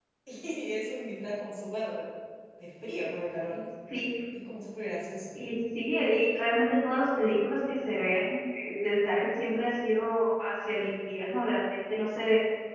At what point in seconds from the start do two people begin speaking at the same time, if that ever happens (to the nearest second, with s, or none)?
none